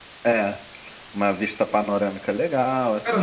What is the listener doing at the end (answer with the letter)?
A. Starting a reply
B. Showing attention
A